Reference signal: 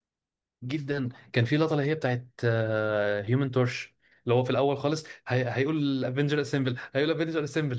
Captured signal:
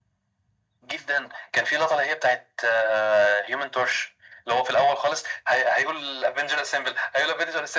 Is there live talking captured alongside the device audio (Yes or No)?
No